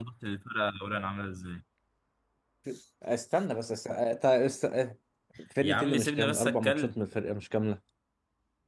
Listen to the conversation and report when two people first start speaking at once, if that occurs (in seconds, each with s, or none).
5.6 s